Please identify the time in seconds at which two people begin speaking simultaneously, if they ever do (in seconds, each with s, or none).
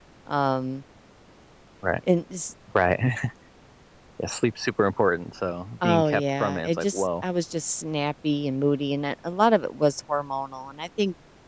5.8 s